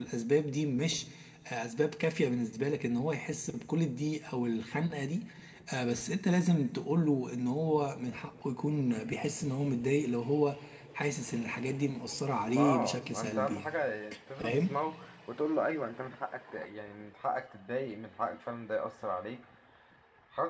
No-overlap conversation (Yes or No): No